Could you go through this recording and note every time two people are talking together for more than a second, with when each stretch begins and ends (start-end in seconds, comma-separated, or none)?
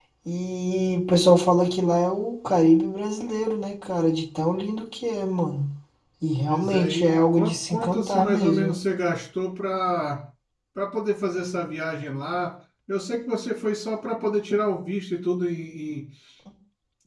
6.4-8.8